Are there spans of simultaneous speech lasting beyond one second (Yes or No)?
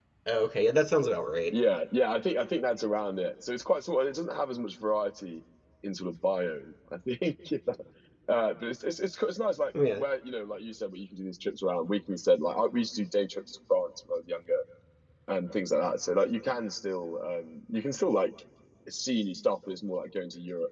No